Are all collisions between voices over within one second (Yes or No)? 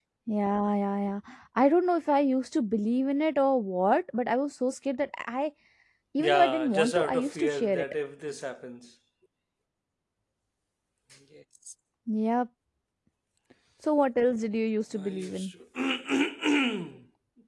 No